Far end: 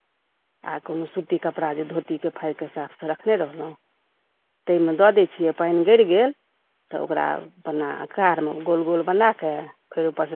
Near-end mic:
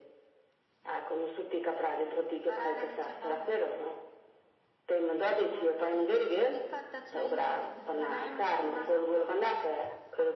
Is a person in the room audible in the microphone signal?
Yes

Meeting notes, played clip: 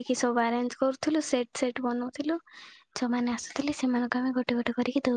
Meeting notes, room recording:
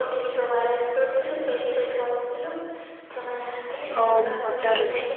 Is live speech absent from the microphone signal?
No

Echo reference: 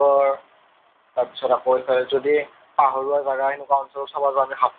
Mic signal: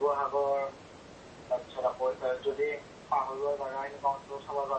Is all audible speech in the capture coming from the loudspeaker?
Yes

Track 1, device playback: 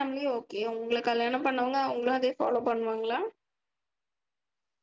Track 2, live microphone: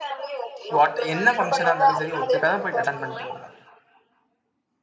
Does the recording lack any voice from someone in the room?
No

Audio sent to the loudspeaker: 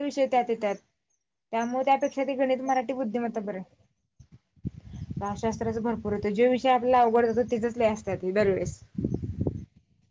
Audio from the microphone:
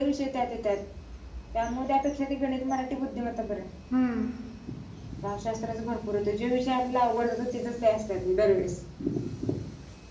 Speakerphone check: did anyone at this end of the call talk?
Yes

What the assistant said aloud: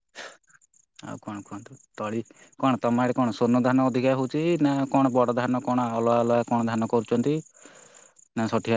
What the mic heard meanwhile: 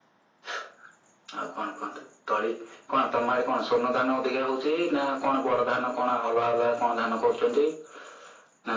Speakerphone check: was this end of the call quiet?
Yes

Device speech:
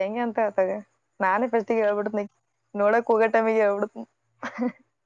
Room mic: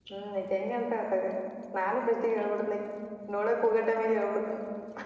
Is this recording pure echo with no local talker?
Yes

